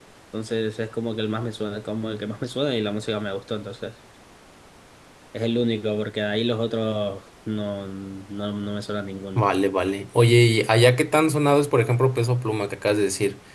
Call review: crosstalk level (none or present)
none